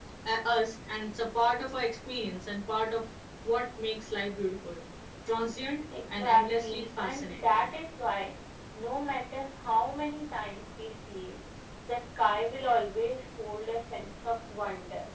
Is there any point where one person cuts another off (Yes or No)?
Yes